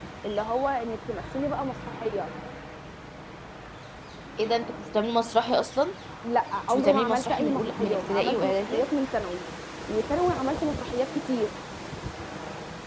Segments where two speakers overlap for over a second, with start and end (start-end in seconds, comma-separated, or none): 6.6-8.8